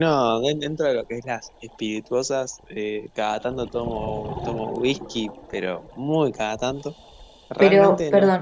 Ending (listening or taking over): taking over